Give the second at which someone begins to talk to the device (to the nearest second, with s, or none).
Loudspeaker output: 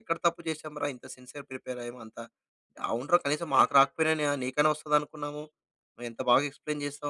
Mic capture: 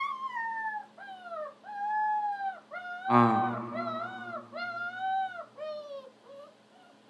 3 s